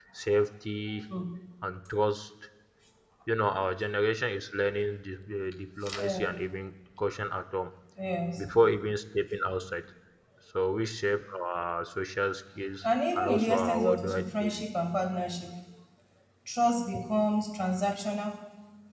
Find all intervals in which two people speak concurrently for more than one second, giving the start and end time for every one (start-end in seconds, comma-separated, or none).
12.8-14.7